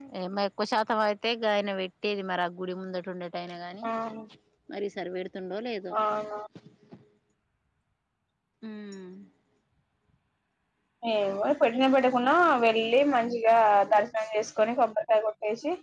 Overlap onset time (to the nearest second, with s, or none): none